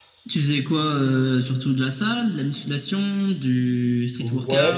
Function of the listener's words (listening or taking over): taking over